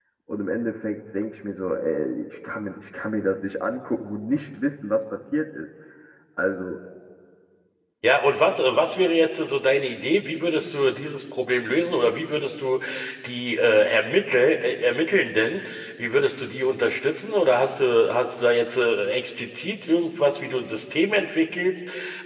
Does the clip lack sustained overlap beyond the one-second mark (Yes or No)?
Yes